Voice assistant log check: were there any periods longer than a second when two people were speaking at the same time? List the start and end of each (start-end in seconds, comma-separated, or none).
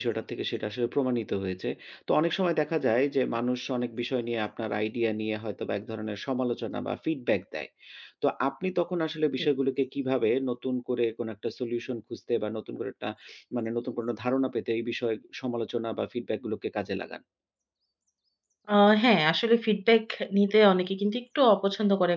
none